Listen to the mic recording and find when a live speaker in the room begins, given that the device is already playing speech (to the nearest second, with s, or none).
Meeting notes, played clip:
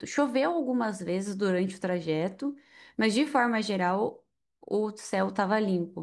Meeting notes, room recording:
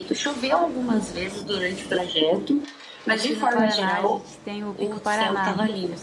3 s